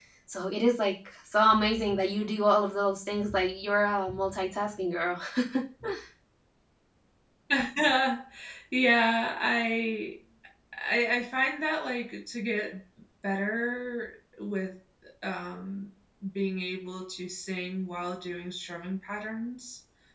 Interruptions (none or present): none